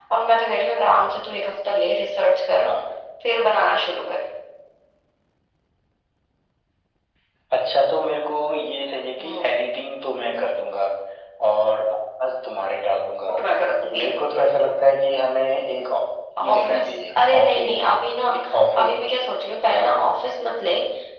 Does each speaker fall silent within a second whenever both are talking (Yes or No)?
No